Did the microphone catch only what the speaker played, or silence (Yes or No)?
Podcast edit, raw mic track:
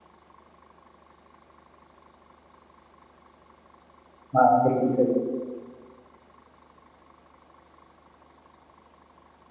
No